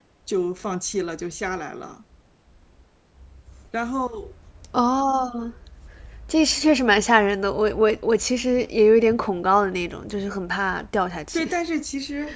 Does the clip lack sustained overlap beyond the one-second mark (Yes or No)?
Yes